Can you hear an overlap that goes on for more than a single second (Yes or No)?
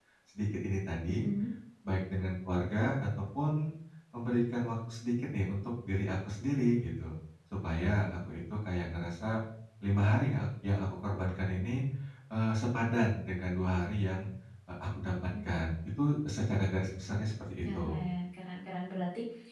No